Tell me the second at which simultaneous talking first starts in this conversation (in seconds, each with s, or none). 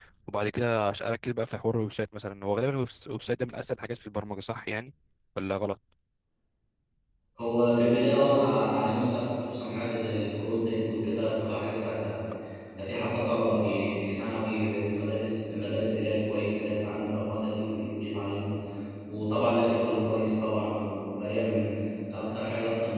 none